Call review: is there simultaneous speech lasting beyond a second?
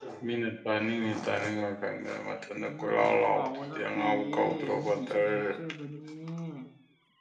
Yes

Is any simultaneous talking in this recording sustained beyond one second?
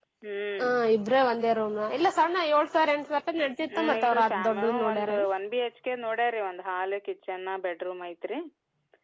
Yes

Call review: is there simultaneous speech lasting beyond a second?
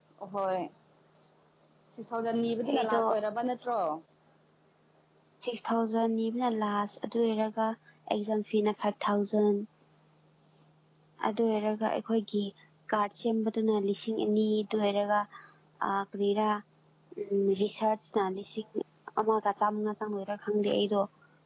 No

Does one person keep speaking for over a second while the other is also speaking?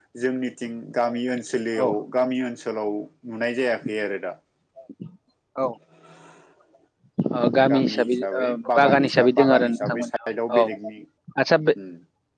Yes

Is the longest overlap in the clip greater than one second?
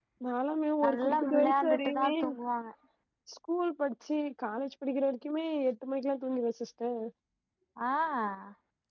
Yes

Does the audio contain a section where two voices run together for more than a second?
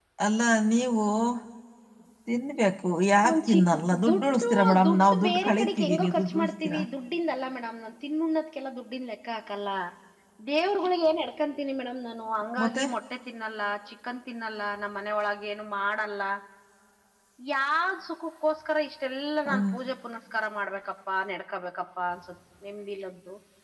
Yes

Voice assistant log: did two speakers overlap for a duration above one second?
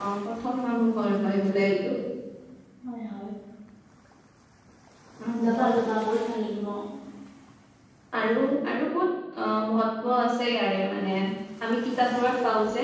No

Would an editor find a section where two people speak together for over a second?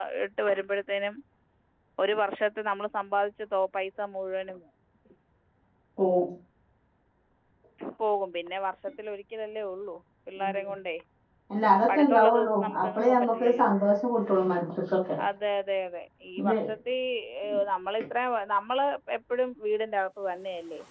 Yes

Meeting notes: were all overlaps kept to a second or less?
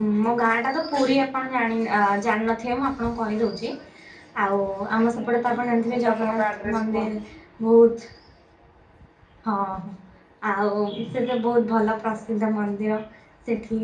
No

